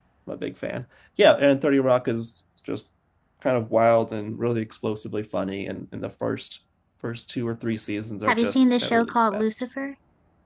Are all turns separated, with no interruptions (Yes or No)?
No